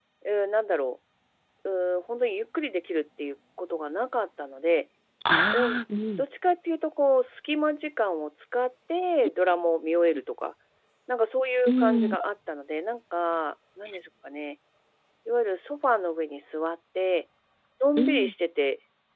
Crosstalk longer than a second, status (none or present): none